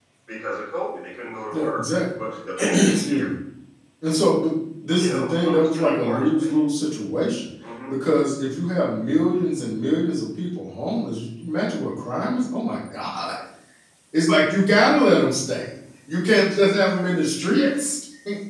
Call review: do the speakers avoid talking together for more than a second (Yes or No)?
No